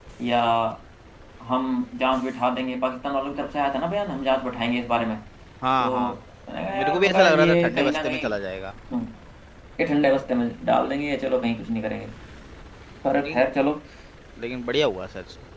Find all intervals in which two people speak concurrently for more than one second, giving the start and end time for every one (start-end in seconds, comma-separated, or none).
6.7-8.3